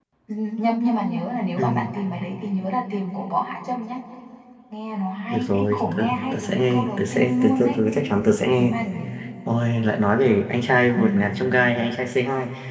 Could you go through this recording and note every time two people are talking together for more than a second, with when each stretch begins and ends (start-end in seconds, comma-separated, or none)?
5.3-7.8